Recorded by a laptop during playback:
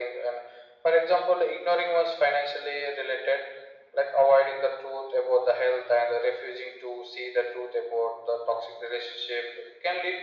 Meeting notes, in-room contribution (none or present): none